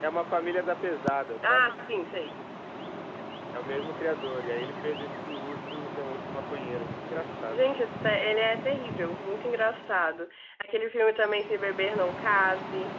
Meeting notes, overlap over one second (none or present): none